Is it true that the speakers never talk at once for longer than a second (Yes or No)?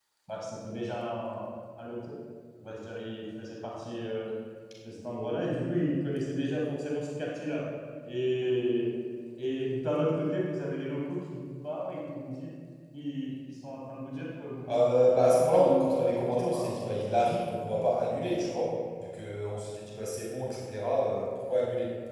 No